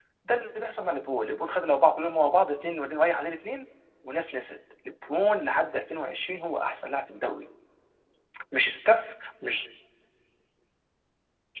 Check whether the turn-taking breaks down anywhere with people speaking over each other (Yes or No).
No